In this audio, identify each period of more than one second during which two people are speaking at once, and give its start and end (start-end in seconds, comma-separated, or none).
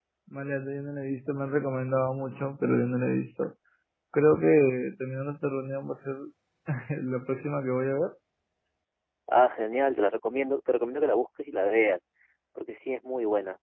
none